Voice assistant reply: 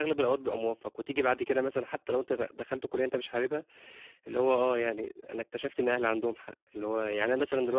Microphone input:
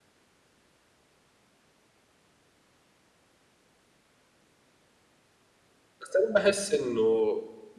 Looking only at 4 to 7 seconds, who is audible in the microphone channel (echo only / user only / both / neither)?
user only